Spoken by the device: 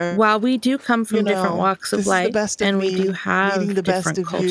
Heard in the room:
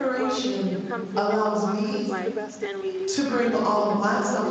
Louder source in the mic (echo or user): user